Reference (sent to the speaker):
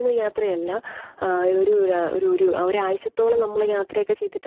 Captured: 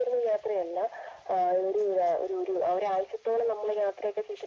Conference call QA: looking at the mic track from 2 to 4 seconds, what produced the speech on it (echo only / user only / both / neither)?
echo only